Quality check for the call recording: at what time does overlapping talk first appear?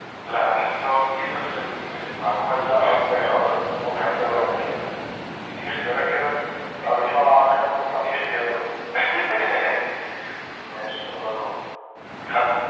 2.7 s

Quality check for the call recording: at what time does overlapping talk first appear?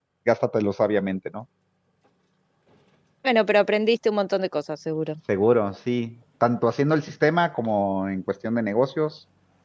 none

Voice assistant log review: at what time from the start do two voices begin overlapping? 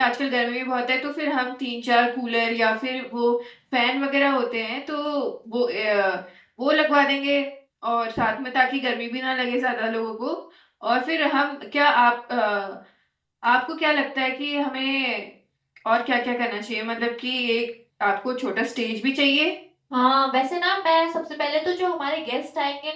none

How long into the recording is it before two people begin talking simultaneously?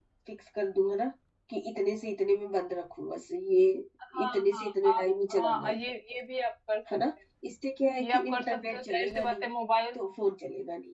4.2 s

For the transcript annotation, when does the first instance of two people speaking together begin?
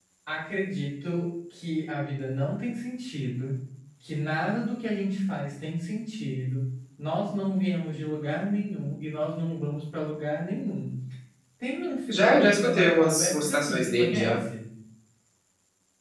12.1 s

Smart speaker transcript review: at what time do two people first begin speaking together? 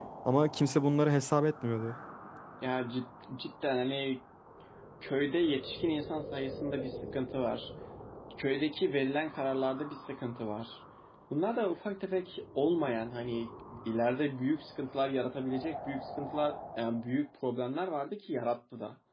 none

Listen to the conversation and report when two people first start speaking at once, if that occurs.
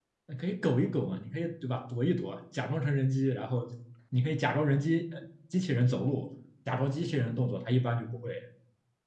none

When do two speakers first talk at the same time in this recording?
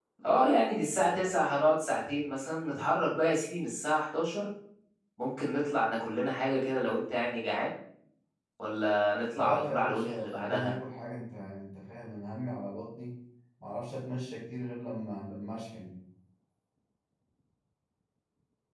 9.3 s

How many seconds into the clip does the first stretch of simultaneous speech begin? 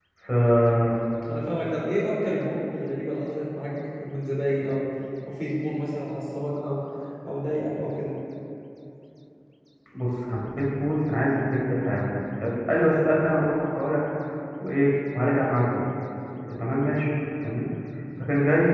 none

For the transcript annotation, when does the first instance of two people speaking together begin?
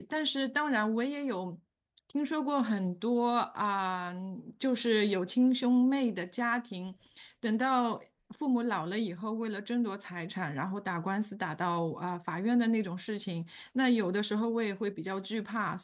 none

